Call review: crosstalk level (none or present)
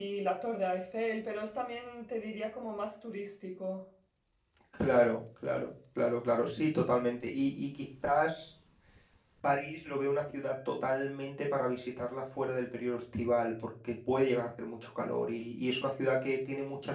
none